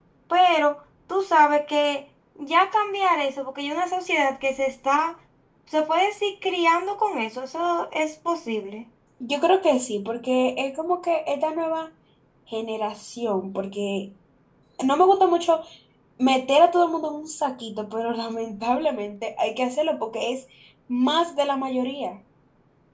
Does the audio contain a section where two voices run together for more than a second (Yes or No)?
No